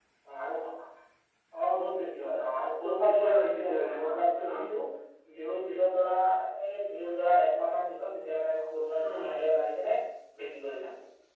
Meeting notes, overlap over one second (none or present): present